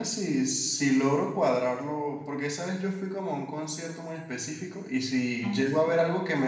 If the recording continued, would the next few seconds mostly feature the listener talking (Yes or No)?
No